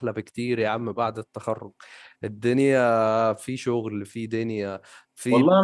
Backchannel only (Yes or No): No